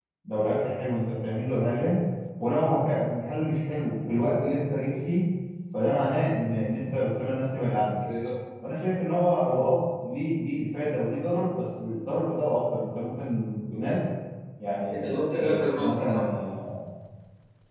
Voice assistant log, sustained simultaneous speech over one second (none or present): present